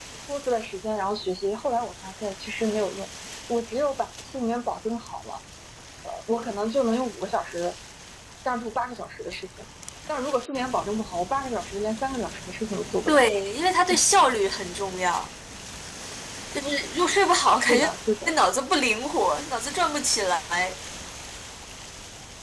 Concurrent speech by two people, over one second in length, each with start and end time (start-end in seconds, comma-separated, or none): none